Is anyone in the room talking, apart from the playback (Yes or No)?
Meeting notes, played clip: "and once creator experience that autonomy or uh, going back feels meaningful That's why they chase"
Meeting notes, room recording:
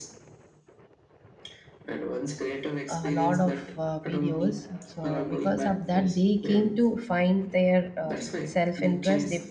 Yes